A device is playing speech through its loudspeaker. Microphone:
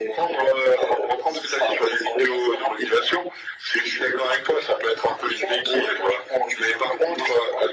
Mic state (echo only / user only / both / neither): echo only